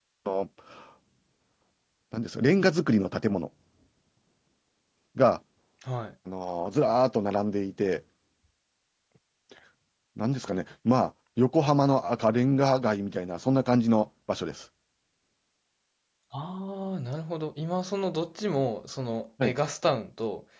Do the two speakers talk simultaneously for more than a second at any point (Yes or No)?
No